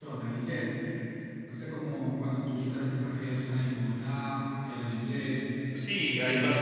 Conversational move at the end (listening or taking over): taking over